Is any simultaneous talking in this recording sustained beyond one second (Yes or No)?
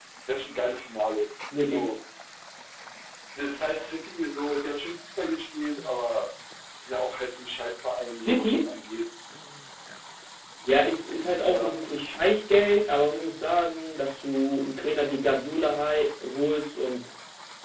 No